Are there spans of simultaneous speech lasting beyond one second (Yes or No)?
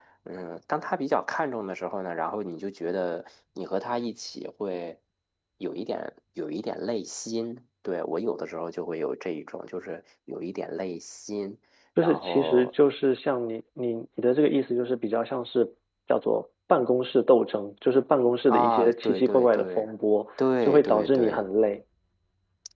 Yes